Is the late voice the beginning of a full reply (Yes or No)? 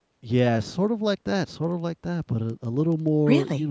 Yes